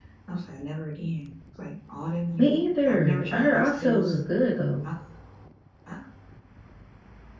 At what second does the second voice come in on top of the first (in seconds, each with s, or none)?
2.4 s